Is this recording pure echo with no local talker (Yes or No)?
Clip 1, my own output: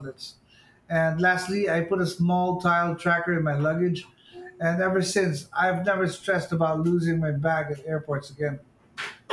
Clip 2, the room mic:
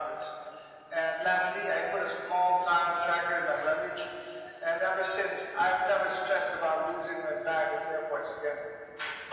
Yes